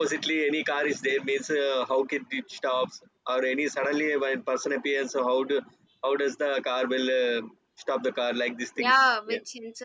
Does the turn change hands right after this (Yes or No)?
Yes